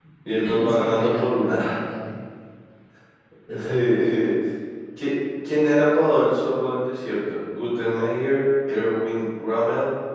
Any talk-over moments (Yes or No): Yes